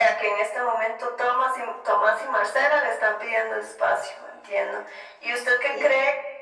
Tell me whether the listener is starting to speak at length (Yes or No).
No